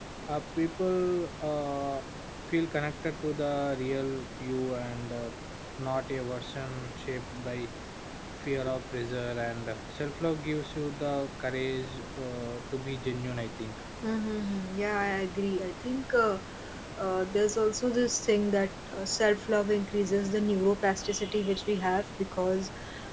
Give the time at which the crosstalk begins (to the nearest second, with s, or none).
none